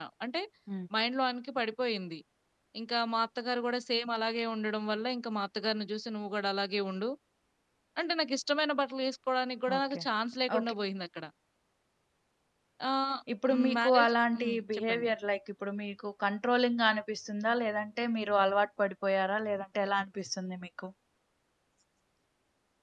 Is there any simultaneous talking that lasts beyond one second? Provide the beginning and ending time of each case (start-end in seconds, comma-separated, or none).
13.5-15.1